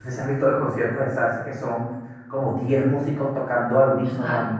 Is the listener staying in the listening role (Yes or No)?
Yes